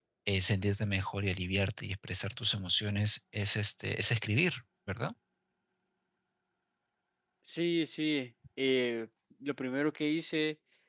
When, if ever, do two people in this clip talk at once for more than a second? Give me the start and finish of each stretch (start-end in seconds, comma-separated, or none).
none